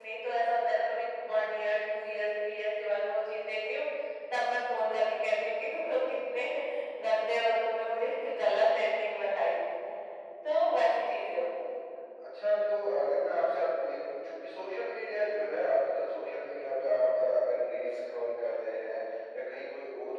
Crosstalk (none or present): none